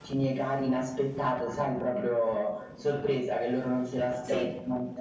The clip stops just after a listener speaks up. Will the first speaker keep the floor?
Yes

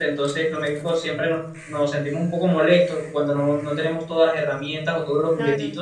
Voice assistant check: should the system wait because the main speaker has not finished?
Yes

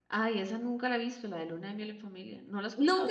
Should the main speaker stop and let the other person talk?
Yes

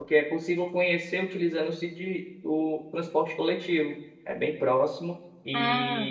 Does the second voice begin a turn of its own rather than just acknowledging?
No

